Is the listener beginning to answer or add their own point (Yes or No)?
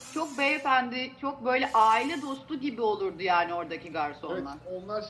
Yes